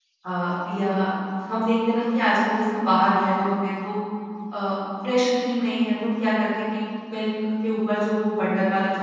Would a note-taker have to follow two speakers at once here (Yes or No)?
No